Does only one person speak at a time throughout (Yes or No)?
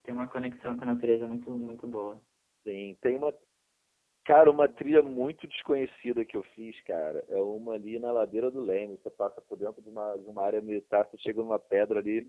Yes